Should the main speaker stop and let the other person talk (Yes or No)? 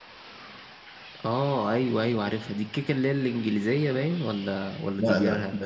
Yes